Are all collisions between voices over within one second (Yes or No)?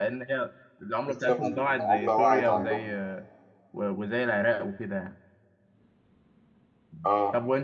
No